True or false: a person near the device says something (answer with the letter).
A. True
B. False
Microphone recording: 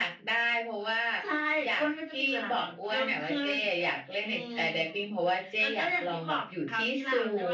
B